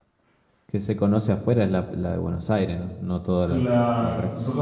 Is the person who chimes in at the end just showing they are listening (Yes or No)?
No